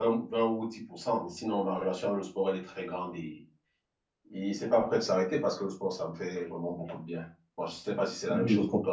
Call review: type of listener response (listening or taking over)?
taking over